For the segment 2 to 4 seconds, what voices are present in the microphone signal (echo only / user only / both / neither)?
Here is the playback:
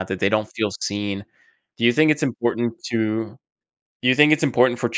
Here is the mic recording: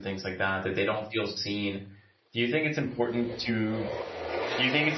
echo only